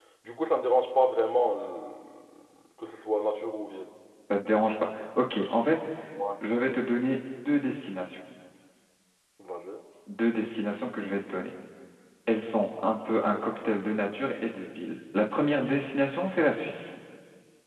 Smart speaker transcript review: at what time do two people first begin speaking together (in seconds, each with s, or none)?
none